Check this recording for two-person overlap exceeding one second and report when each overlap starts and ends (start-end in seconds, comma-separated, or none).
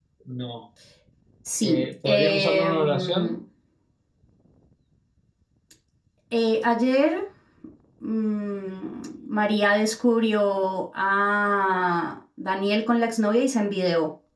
1.6-3.4